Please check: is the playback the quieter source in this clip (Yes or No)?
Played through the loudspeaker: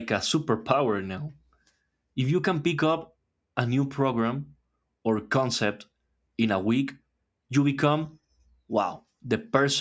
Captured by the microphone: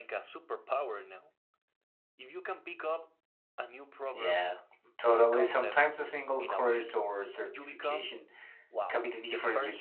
Yes